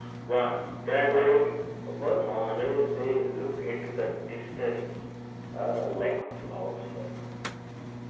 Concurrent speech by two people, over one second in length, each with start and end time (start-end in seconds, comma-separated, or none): none